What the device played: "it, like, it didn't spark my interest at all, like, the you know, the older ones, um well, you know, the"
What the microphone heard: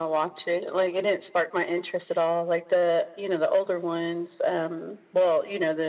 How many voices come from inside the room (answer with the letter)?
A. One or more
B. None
B